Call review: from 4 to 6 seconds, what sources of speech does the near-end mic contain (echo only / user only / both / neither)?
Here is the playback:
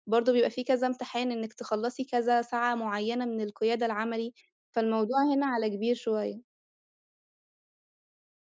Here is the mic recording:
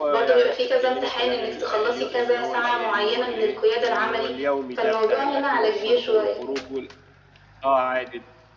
both